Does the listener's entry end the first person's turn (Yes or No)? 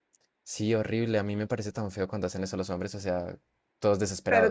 Yes